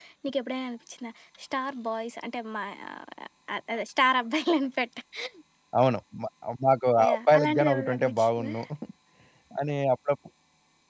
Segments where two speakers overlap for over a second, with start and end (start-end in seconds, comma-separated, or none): 7.0-8.5